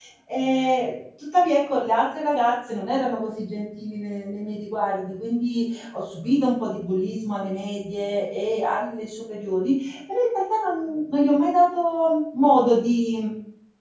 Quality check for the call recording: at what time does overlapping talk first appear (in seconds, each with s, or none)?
none